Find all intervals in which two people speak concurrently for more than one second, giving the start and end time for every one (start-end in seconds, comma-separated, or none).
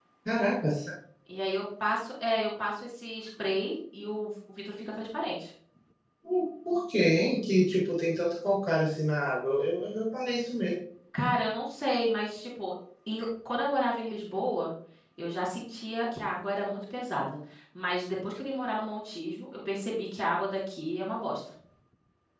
none